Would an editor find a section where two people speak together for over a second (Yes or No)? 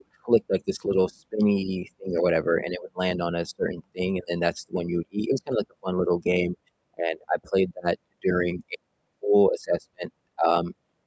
No